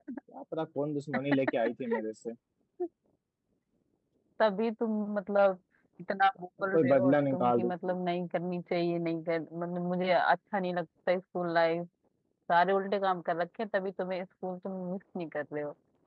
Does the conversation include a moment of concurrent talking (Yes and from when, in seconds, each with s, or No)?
Yes, from 6.6 s